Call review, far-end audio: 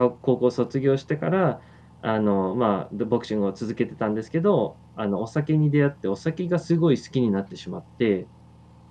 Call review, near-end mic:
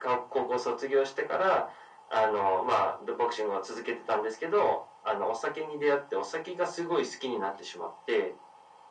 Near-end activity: none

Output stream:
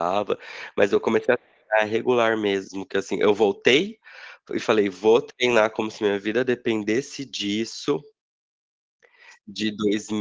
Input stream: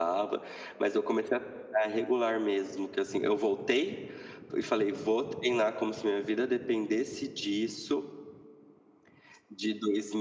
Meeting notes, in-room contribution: none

